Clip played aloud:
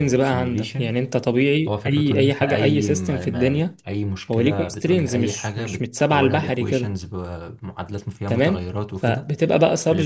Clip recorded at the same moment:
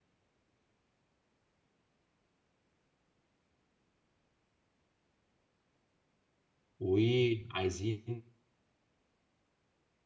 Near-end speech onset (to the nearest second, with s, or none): 7 s